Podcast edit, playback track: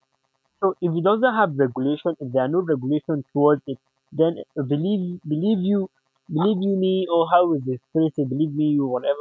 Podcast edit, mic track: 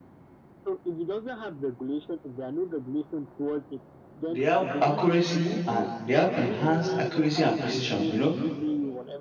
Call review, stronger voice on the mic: user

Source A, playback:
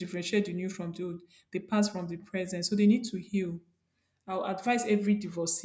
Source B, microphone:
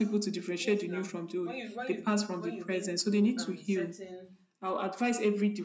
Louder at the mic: echo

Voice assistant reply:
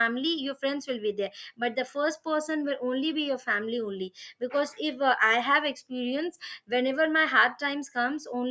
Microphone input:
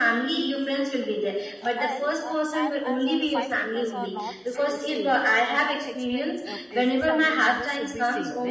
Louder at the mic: echo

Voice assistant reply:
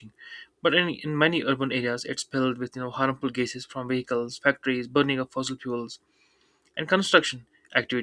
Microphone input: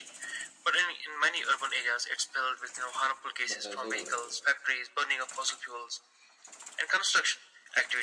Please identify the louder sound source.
echo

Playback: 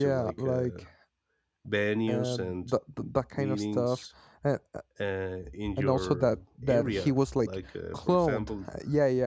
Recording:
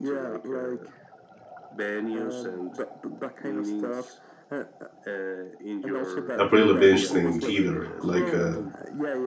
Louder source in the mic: user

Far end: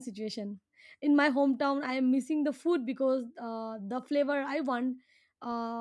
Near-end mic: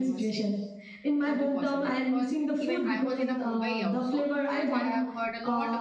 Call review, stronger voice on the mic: echo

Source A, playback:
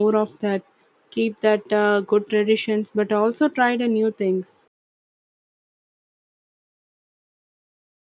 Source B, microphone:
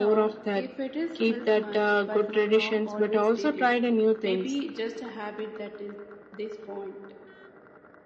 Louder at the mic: echo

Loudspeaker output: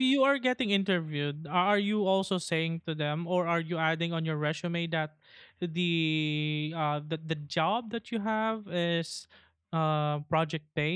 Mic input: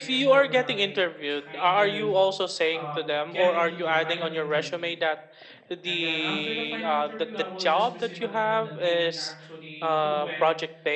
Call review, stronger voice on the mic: echo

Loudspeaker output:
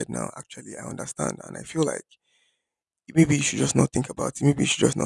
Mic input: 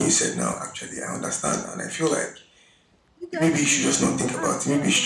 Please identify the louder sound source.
echo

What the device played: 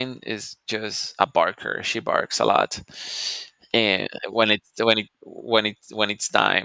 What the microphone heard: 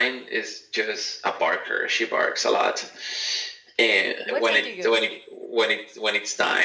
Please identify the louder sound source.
echo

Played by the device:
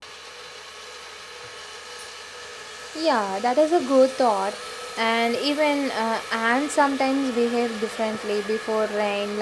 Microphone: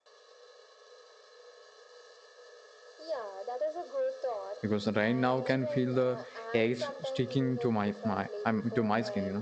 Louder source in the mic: user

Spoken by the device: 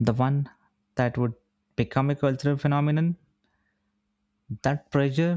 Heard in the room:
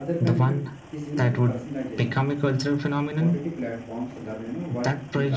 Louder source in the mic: echo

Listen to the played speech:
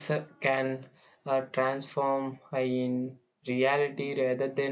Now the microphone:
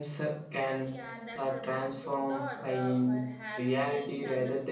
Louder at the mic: echo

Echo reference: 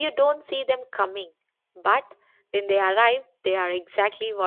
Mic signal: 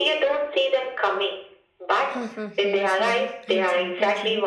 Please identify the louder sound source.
echo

